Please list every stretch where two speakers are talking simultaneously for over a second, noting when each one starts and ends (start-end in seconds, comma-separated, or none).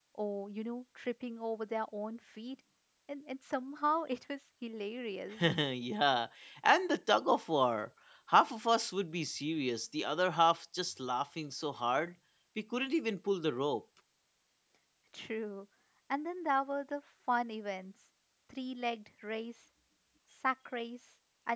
none